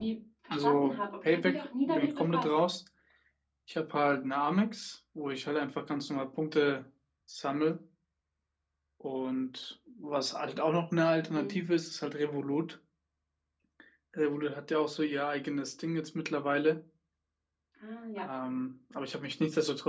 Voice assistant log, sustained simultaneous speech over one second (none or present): present